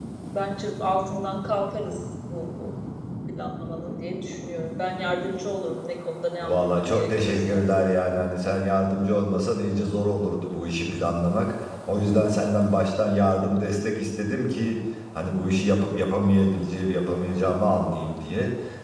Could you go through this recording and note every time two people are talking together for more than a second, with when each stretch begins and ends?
6.4-7.8

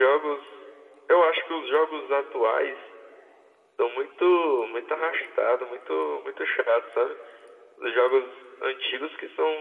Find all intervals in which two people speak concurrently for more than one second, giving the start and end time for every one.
none

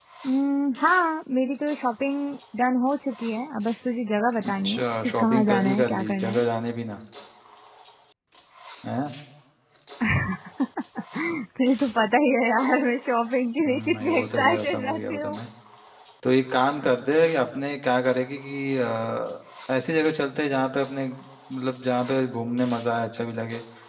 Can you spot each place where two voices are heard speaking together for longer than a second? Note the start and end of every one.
4.5-6.4, 13.6-15.4

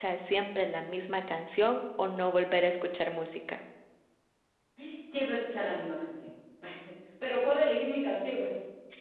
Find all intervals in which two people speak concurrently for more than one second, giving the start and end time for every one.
none

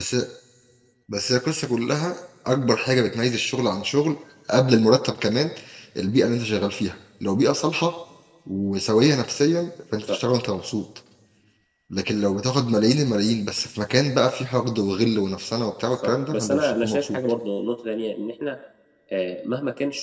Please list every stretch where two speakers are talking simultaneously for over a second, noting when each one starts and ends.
15.9-17.2

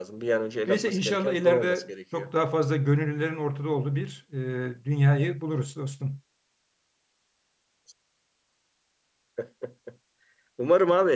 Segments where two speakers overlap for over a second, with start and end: 0.7-2.2

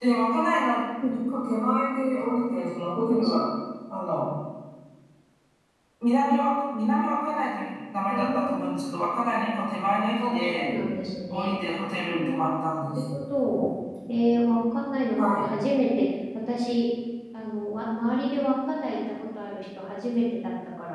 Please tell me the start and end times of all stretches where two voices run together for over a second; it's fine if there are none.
none

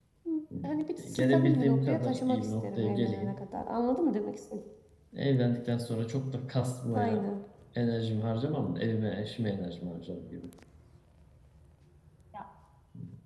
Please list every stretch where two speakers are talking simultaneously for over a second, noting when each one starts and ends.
1.0-3.4

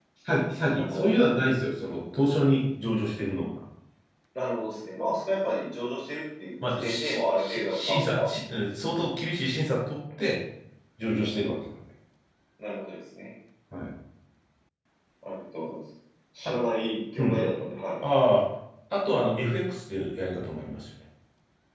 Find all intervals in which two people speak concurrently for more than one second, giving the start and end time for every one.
6.6-8.3

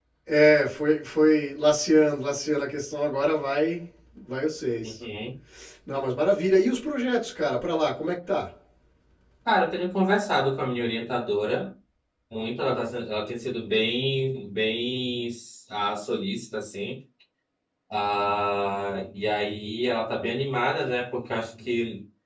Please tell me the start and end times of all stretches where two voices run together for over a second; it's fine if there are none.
none

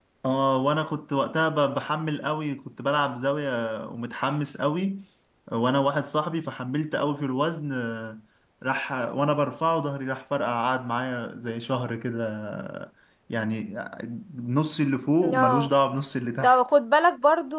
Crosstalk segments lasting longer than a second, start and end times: none

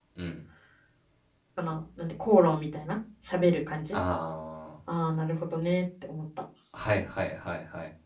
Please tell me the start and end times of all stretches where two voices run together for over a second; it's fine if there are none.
none

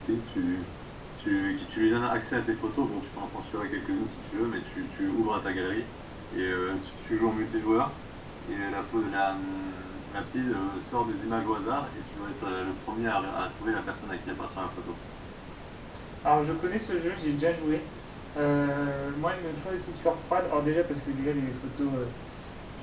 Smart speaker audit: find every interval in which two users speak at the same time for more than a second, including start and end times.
none

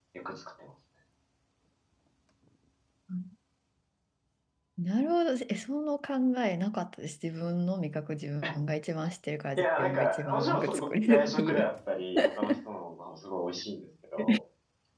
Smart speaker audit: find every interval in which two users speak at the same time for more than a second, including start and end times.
9.6-11.7

